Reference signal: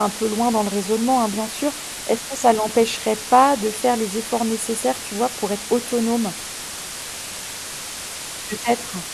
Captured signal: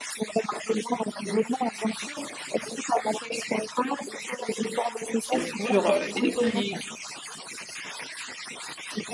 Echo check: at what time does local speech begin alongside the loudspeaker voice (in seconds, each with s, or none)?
5.3 s